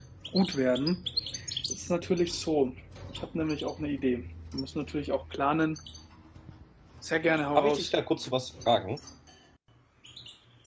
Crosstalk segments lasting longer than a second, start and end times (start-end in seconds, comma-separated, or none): none